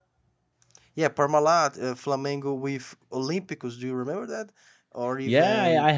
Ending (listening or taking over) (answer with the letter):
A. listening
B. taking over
B